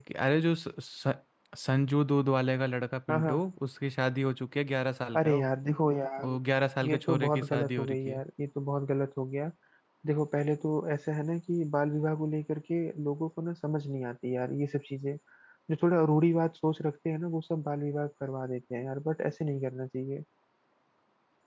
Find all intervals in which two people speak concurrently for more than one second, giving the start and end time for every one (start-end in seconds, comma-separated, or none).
6.9-8.2